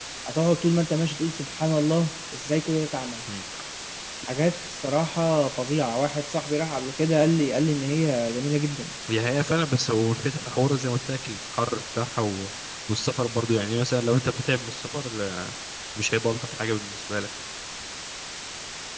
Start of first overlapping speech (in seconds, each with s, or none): none